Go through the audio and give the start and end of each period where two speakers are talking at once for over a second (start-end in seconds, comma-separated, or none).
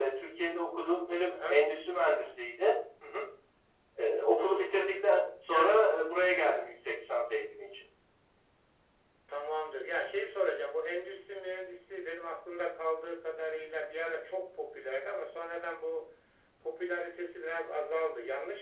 none